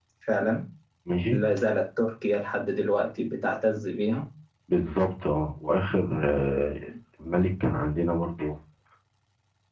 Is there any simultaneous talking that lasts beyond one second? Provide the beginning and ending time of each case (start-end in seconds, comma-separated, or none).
none